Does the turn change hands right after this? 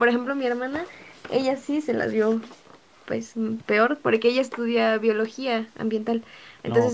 No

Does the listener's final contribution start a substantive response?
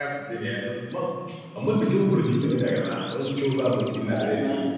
Yes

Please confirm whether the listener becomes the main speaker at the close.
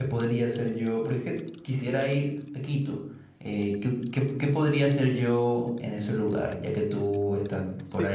Yes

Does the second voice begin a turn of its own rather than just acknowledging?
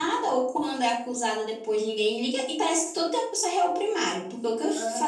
No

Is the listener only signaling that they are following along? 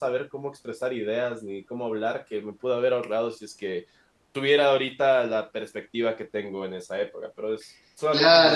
No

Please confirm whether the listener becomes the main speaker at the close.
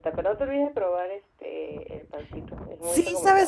Yes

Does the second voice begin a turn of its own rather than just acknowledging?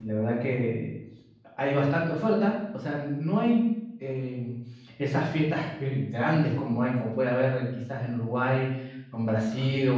No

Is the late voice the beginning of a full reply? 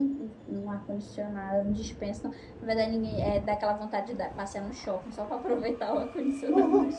Yes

